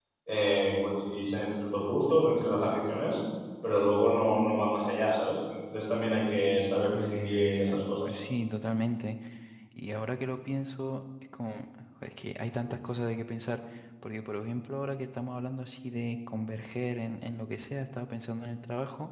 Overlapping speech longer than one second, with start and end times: 6.9-8.2

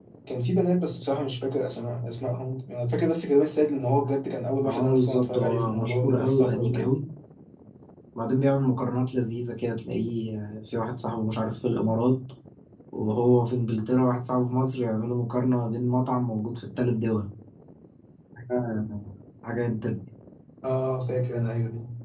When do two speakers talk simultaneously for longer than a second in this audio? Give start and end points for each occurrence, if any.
4.6-6.9

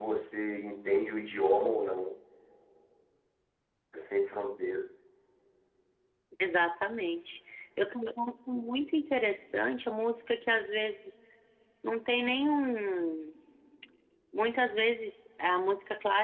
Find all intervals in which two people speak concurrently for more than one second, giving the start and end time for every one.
none

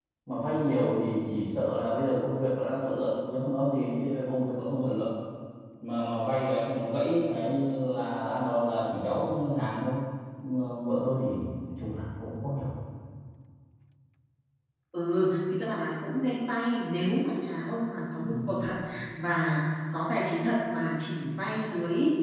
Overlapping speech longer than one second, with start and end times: none

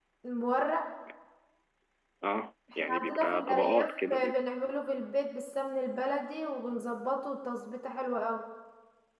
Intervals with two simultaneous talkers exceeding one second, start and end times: 2.8-4.4

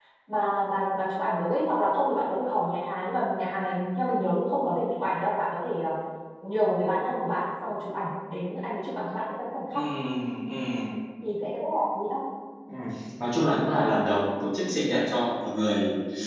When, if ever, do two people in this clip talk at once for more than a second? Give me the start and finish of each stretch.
none

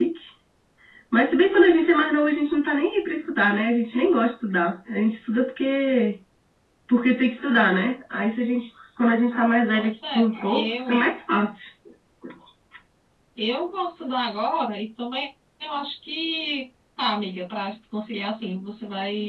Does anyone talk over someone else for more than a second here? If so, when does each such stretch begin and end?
9.7-11.0

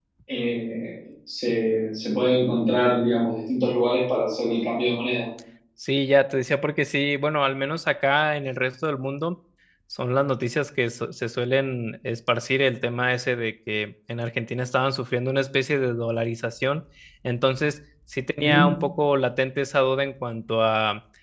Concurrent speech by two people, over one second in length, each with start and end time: none

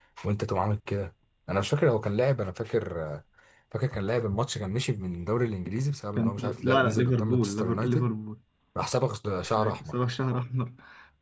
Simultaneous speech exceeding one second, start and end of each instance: 6.2-8.1

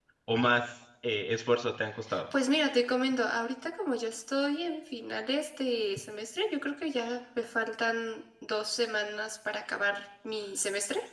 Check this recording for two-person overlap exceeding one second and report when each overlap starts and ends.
none

